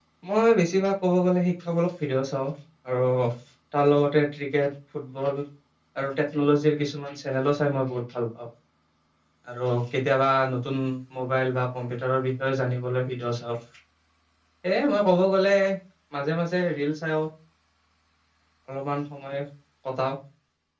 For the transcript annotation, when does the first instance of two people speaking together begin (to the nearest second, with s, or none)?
none